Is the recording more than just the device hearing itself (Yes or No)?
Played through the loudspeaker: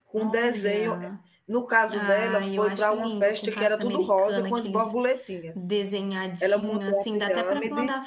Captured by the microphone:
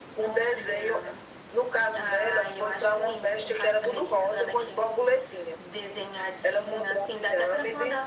No